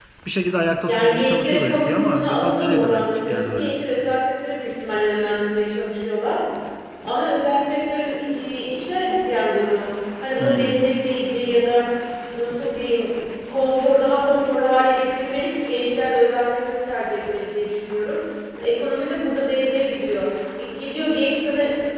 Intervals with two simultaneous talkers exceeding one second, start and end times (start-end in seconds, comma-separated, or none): 0.8-3.7